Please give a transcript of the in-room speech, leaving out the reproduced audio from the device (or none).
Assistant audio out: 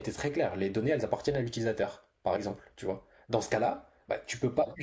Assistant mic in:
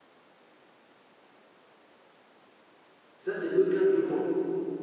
Ça, c'est le cas que je vois.